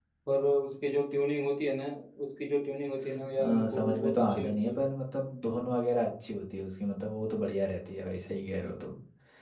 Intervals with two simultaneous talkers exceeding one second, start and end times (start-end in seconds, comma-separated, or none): 3.4-4.8